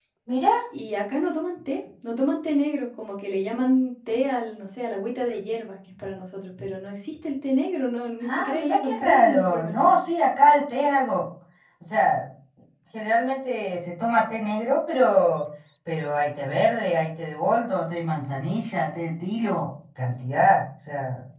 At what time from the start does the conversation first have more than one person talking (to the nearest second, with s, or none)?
8 s